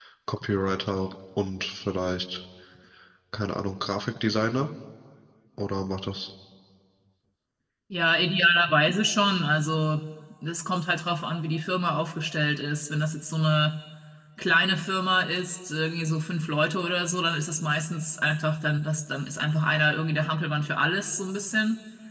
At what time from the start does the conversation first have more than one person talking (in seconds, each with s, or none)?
none